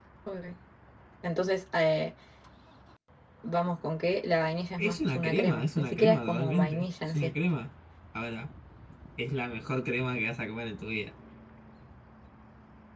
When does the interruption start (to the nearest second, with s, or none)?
5 s